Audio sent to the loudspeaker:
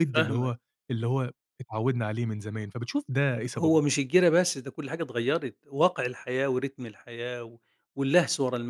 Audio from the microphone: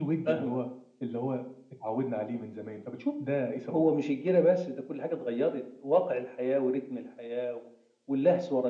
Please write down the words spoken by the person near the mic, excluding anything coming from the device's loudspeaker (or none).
none